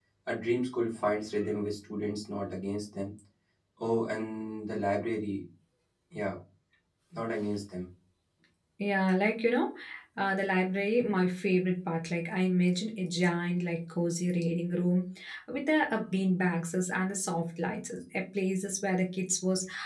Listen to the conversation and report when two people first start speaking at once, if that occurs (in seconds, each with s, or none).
none